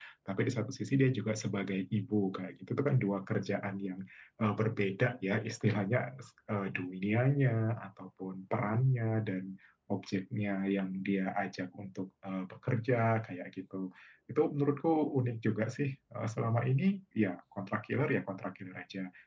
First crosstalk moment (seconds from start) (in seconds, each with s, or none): none